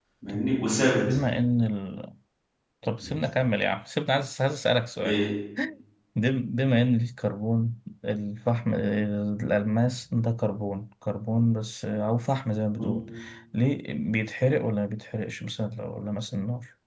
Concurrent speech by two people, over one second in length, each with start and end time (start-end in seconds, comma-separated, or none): none